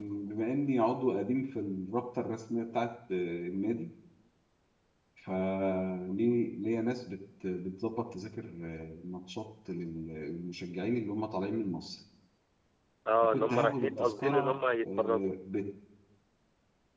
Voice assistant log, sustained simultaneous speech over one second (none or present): present